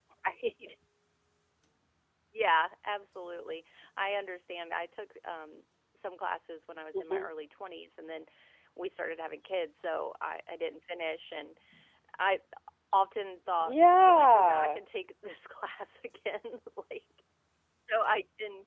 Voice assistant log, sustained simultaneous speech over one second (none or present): present